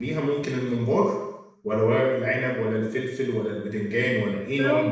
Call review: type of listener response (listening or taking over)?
taking over